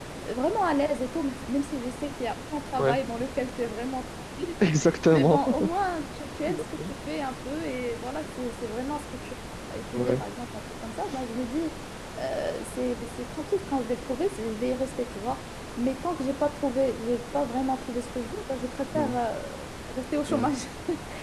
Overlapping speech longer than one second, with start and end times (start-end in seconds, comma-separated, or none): none